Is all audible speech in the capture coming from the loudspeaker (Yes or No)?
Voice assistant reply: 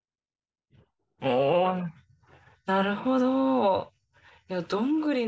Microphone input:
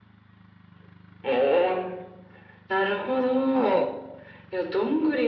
No